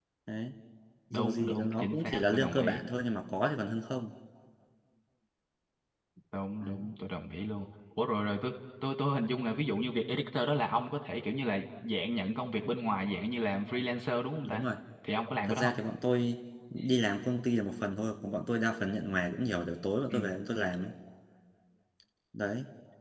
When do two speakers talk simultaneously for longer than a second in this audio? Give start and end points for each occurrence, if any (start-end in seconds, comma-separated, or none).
1.1-2.8